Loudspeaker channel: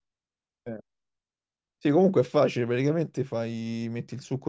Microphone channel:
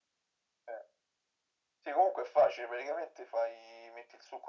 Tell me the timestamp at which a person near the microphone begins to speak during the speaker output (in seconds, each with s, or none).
none